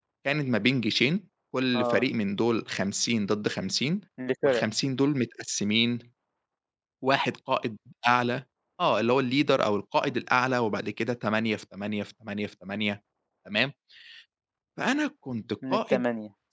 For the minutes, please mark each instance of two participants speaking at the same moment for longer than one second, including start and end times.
none

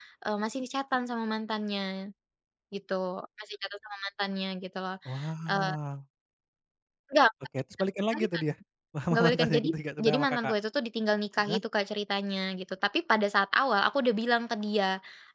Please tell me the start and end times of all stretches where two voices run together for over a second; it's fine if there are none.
9.1-10.5

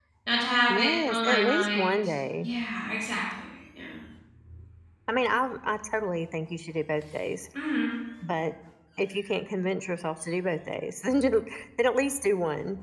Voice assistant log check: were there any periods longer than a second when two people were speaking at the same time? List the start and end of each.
0.7-2.0

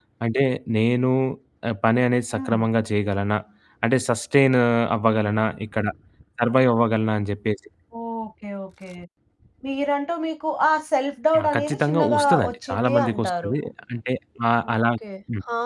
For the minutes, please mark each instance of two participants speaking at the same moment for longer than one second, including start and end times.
11.4-13.5

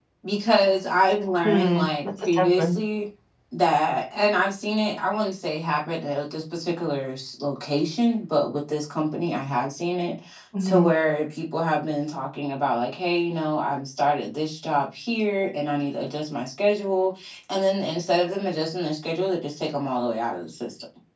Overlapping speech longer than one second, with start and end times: 1.4-2.8

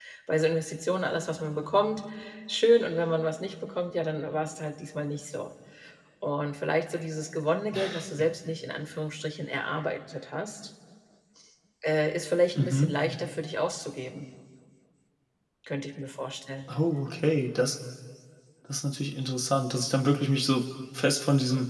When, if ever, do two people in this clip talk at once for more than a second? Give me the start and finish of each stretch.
none

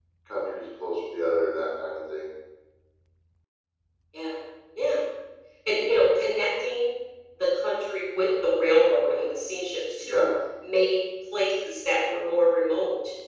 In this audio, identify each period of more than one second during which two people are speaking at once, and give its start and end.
none

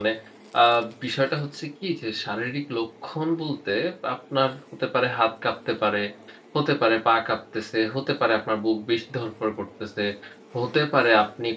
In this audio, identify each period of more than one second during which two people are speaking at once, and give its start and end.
none

